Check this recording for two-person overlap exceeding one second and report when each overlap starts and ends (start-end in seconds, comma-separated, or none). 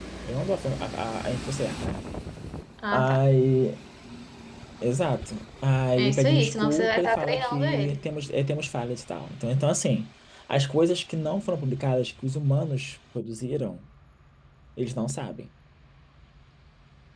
6.0-8.0